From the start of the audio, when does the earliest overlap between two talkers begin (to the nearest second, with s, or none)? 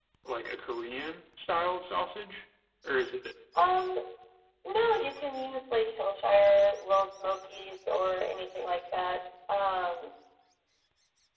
none